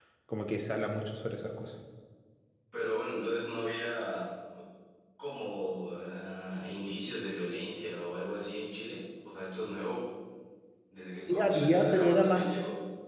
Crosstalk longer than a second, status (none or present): present